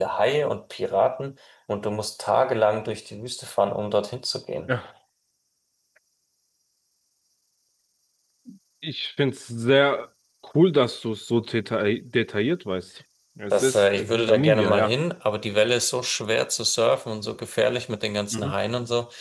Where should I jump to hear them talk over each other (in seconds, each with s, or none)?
13.5 s